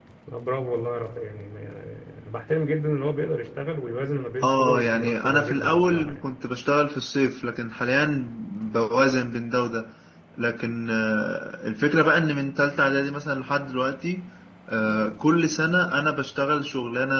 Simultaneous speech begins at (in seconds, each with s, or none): 4.4 s